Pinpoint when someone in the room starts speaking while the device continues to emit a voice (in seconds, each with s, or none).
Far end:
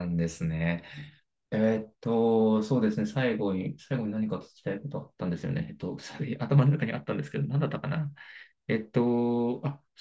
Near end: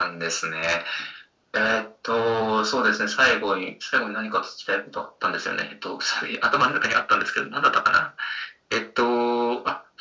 none